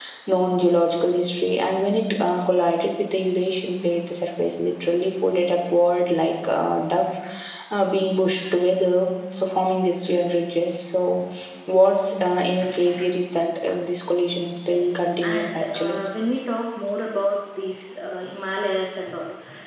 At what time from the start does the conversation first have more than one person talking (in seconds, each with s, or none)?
14.7 s